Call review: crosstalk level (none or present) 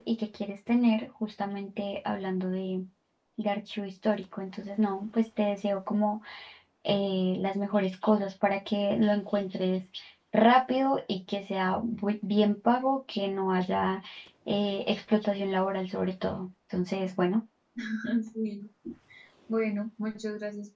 none